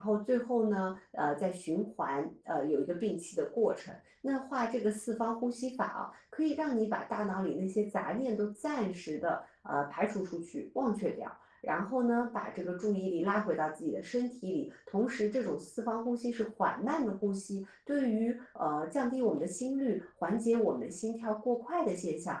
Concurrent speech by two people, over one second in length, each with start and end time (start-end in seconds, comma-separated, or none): none